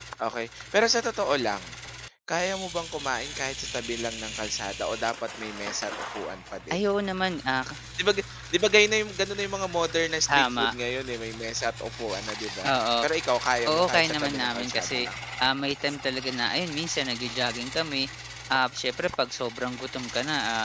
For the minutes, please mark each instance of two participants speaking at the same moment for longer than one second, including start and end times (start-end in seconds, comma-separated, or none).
13.7-15.0